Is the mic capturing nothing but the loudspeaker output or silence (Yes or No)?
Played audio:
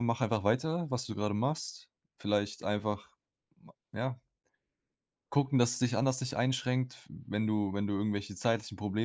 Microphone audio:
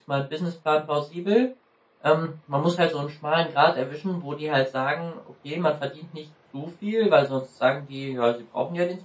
No